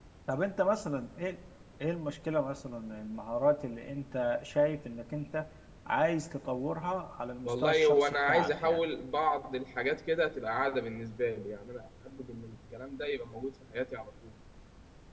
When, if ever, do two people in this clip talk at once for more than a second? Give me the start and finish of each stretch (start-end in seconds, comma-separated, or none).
7.4-8.9